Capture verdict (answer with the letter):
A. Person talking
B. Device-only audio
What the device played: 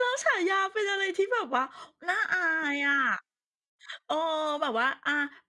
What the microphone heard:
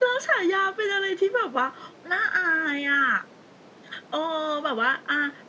B